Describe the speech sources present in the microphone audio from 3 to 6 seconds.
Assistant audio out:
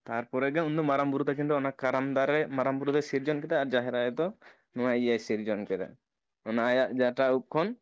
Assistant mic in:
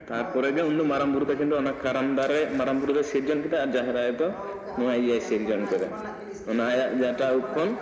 both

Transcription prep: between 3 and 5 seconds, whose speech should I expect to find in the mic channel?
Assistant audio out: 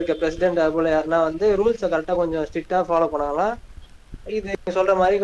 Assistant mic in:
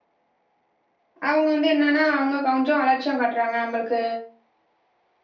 user only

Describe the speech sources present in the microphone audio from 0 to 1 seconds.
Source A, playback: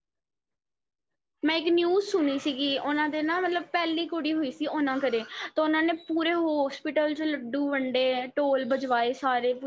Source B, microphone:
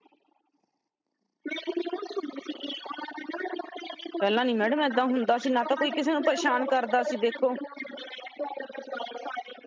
neither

